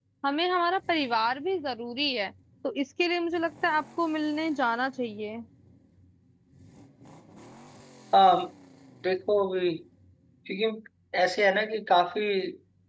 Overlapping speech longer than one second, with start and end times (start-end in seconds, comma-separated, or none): none